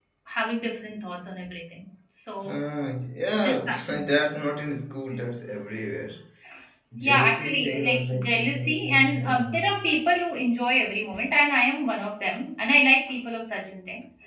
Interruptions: present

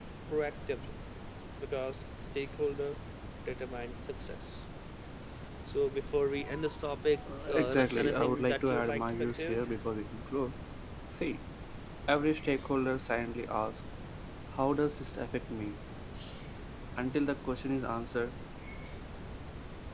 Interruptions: present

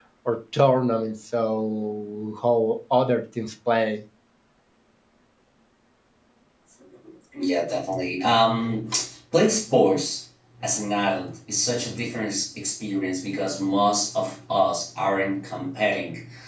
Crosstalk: none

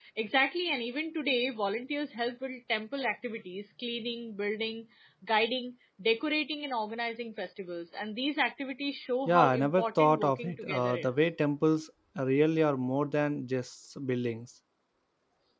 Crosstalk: present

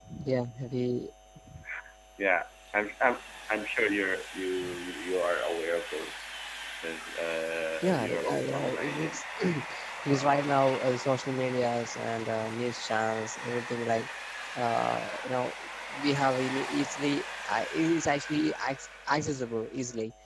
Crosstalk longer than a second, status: present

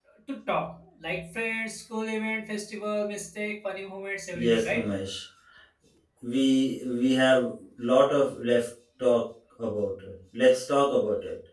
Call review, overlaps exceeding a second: none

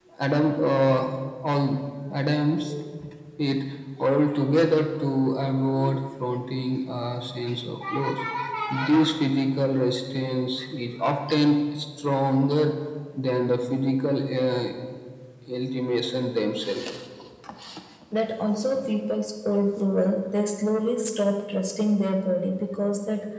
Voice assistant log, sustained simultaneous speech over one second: none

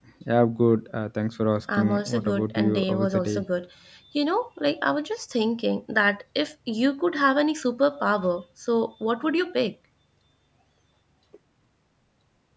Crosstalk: present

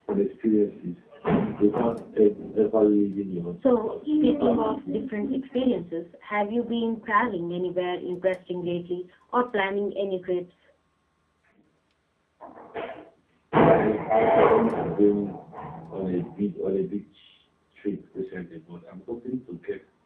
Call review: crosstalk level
present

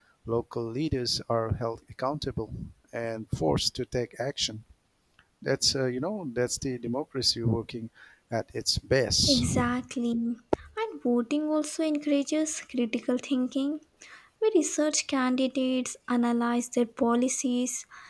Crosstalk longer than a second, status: none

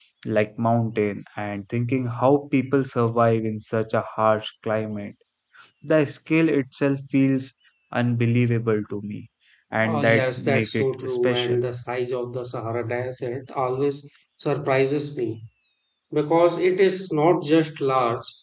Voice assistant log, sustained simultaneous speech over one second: present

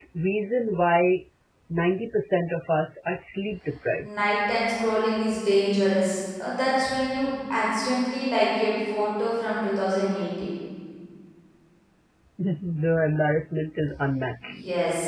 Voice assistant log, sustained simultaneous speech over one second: none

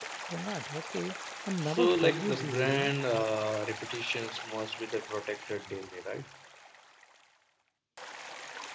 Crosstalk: present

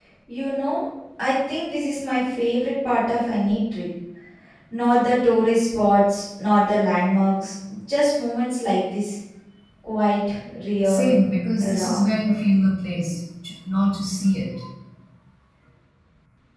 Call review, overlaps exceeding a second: none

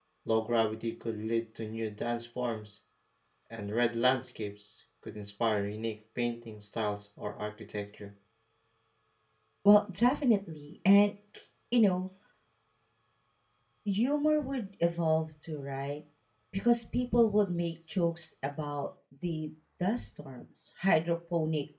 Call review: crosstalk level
none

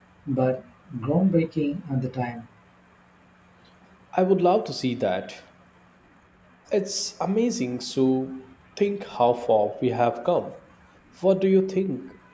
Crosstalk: none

